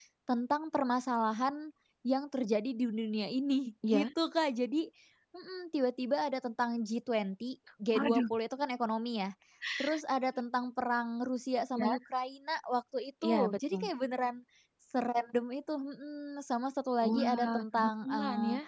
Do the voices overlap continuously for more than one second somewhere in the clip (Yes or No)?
Yes